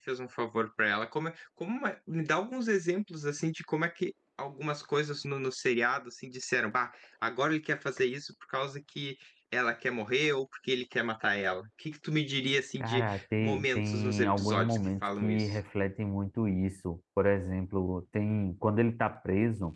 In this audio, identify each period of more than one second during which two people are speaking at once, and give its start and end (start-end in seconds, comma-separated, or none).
12.8-15.6